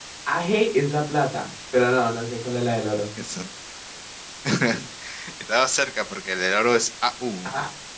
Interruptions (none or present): none